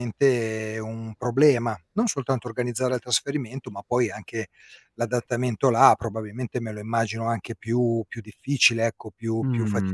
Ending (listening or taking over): taking over